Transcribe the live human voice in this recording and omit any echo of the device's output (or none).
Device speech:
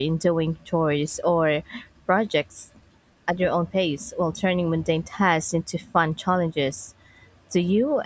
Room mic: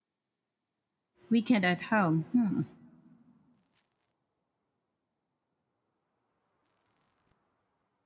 weekend at home. Hmm.